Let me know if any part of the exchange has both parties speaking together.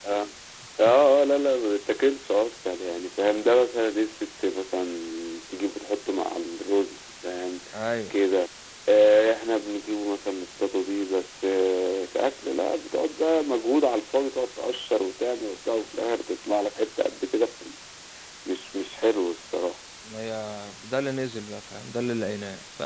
No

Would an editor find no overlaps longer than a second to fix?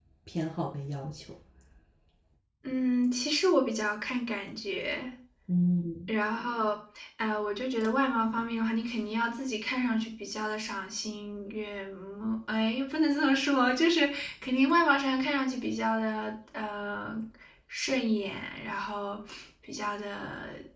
Yes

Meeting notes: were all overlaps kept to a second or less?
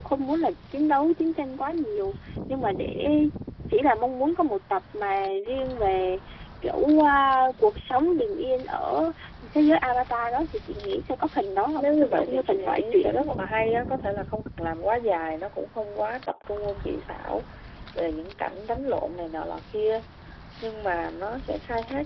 No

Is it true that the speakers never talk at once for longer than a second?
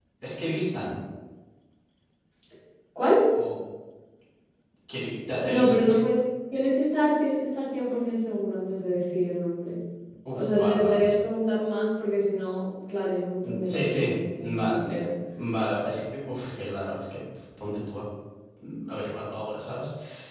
No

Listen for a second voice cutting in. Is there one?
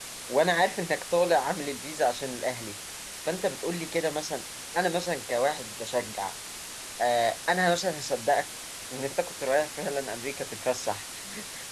No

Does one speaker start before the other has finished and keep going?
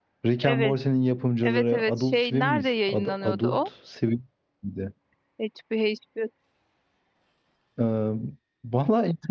Yes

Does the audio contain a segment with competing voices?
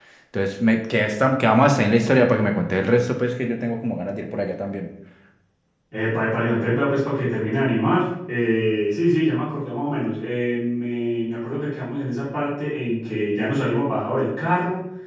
No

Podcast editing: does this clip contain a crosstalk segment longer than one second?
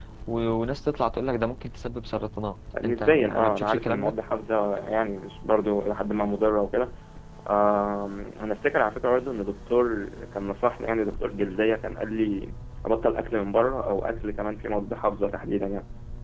Yes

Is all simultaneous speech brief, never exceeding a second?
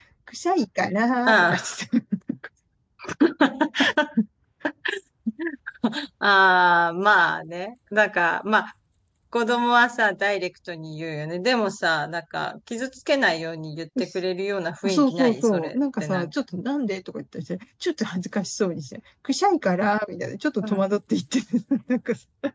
No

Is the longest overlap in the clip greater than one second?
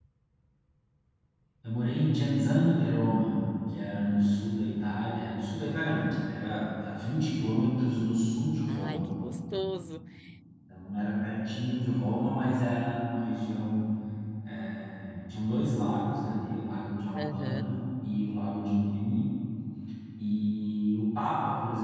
No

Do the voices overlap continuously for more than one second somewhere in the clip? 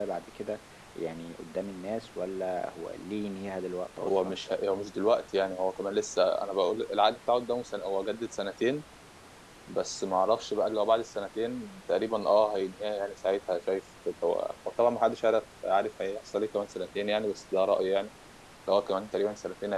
No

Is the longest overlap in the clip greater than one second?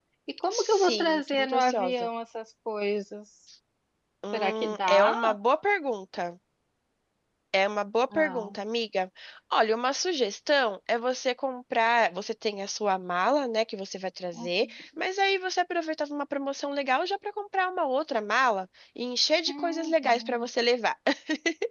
Yes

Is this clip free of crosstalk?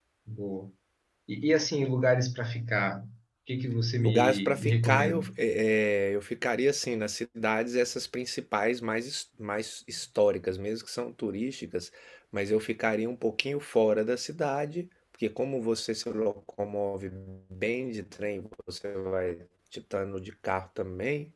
No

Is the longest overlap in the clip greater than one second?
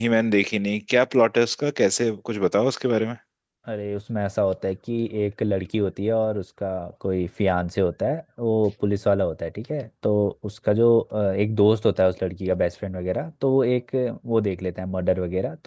No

